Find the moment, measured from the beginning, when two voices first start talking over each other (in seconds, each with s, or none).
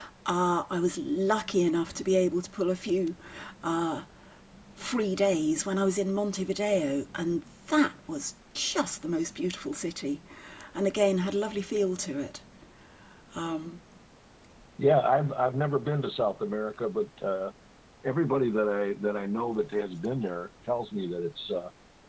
none